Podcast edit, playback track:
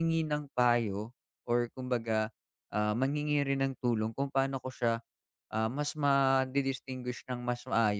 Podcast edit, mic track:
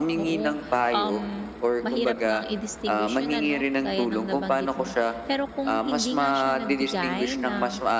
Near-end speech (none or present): present